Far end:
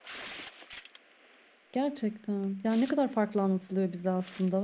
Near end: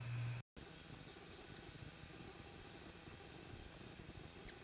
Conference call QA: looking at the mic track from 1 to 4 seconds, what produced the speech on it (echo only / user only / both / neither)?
neither